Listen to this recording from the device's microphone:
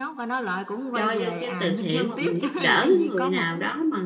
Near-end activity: present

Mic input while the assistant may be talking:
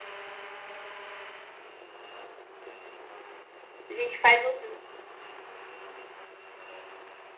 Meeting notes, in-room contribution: present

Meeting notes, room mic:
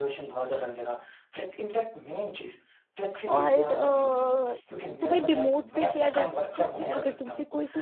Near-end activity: present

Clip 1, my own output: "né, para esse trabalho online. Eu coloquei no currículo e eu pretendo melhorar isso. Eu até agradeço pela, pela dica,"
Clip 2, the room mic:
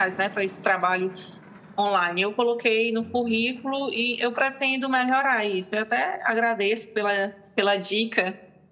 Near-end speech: present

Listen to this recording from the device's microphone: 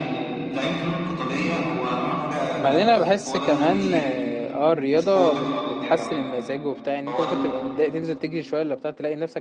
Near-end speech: present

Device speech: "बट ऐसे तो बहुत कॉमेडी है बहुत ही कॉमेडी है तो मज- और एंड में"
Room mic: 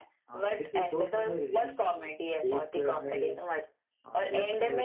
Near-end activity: present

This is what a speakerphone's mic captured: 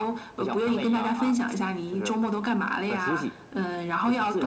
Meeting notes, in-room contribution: none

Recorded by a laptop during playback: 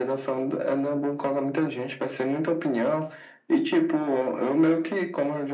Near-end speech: none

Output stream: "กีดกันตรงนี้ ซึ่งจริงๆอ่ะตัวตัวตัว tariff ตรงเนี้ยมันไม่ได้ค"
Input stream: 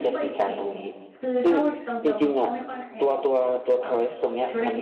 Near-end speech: present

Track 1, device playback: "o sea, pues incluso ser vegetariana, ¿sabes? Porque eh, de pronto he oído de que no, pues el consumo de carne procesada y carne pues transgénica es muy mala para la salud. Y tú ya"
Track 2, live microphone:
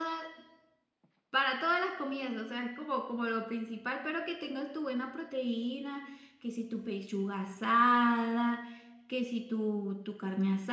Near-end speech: present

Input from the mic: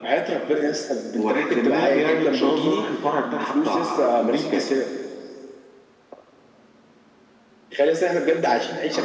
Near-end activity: none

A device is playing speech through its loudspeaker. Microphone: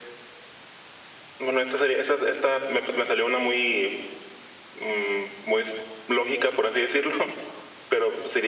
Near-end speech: none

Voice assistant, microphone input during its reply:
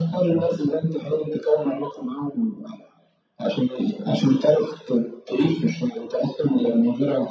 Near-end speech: none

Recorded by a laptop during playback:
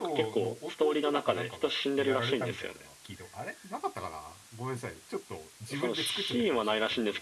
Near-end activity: present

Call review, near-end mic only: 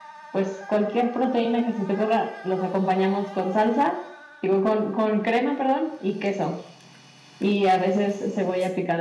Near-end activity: none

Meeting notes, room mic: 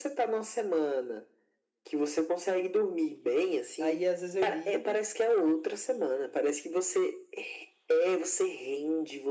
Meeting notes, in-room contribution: present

